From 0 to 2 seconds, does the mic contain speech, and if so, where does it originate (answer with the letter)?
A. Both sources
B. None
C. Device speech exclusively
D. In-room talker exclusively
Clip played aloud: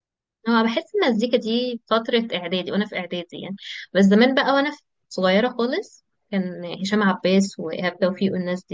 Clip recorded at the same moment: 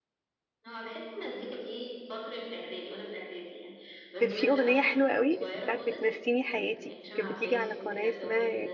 C